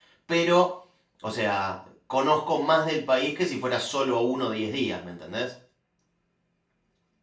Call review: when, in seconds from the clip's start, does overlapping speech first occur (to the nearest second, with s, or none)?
none